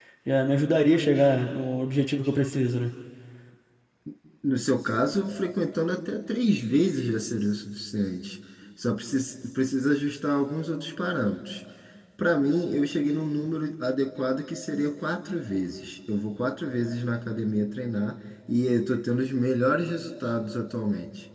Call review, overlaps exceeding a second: none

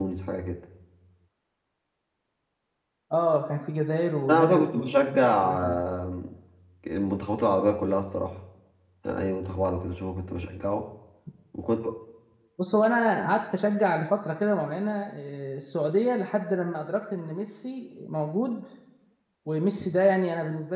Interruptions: present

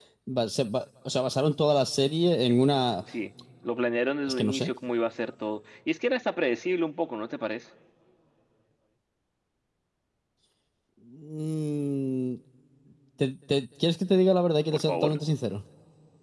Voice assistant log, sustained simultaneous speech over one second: none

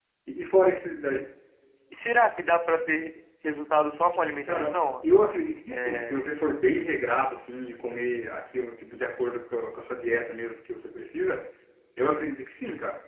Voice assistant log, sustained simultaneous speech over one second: none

